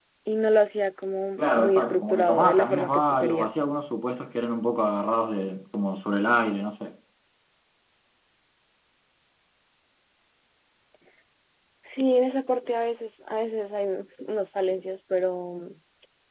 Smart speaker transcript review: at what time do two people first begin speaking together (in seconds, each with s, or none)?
1.4 s